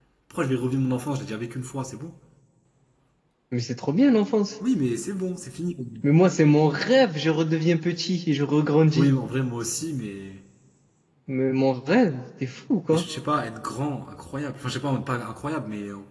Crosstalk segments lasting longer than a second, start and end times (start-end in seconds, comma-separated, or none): none